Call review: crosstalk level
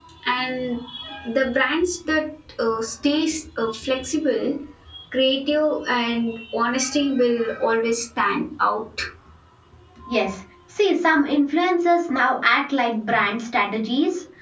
none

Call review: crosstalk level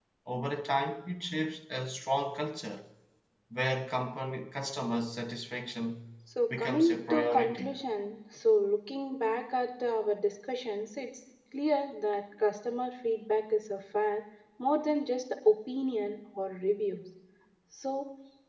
present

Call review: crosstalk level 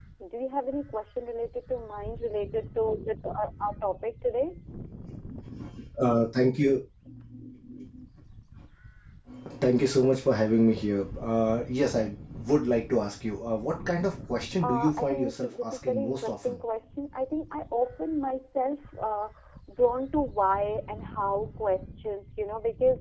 present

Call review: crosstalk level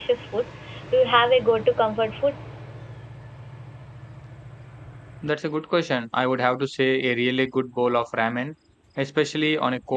none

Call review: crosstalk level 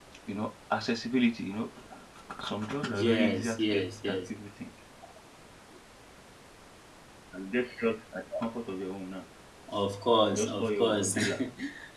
present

